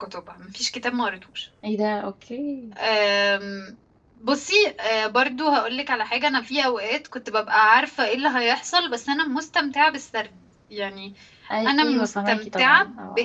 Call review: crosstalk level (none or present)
present